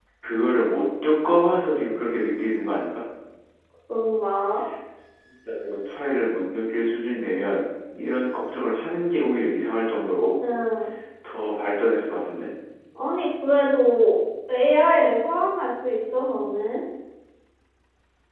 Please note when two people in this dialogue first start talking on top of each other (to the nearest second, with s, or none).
none